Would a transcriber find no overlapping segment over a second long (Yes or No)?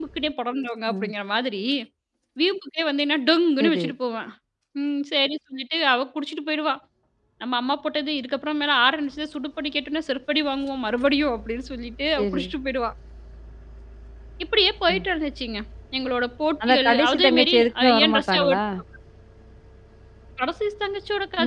No